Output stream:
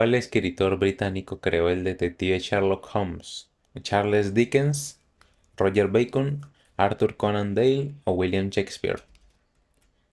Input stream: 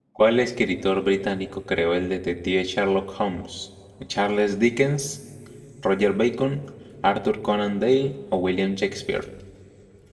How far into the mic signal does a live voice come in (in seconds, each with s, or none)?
none